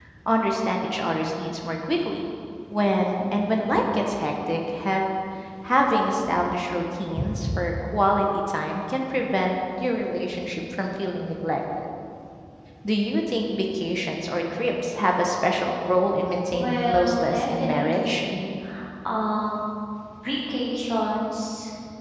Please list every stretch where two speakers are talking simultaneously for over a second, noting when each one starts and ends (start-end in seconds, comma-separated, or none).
16.5-18.2